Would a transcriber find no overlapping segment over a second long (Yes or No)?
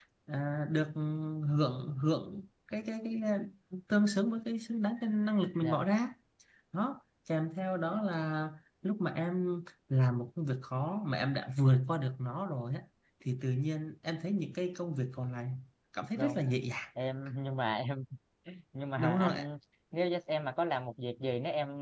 Yes